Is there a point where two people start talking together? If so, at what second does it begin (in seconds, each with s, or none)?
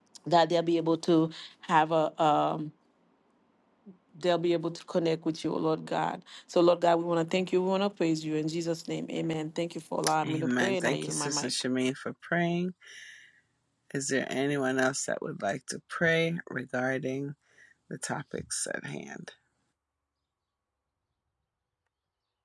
10.0 s